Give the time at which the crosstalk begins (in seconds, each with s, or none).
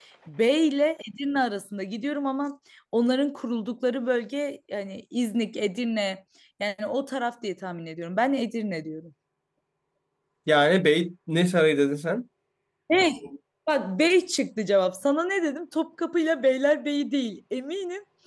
none